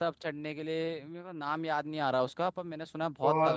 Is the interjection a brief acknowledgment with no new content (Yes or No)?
No